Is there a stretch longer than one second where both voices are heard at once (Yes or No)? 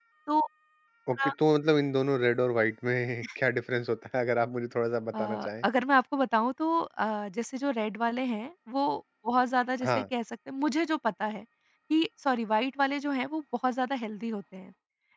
No